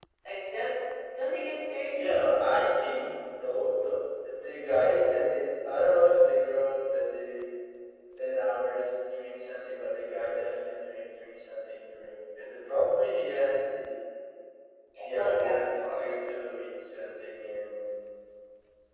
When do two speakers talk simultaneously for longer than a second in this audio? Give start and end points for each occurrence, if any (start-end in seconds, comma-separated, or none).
15.0-16.4